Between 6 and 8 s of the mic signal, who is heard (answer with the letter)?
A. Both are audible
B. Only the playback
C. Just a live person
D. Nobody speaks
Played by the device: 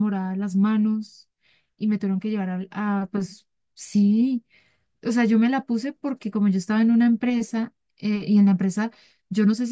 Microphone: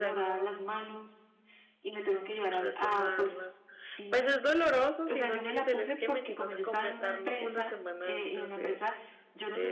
A